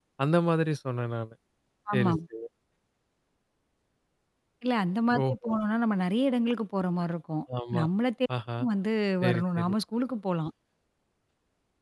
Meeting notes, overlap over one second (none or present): none